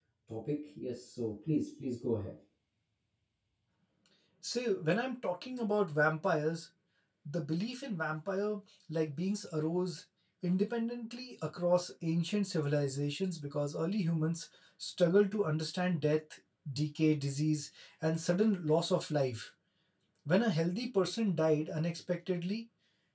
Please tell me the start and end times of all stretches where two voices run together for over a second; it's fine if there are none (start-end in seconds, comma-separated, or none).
none